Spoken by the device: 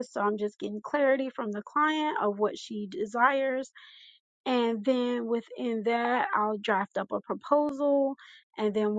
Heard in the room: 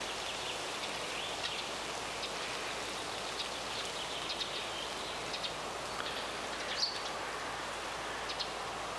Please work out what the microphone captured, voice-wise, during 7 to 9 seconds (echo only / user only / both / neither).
neither